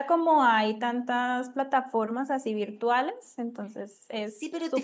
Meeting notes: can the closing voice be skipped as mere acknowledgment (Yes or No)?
No